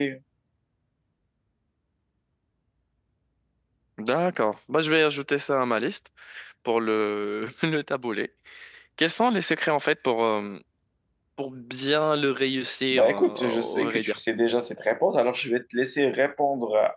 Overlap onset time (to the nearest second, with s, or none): 13 s